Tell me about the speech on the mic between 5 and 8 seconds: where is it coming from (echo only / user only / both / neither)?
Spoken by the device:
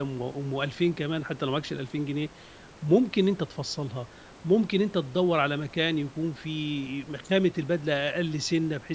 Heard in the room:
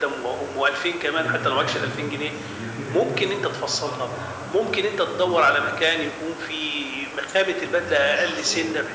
both